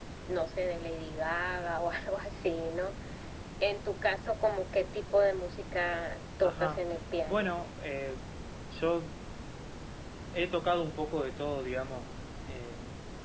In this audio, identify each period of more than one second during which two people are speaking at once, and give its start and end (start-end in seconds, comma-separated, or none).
none